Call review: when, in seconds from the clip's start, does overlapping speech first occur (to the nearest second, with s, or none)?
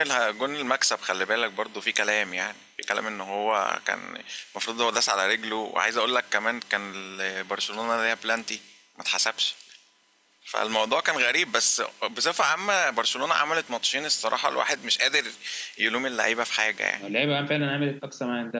none